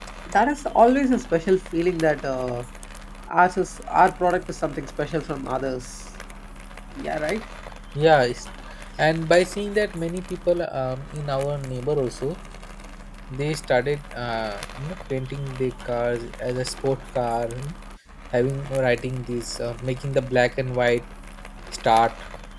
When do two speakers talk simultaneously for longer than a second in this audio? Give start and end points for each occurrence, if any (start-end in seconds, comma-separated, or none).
none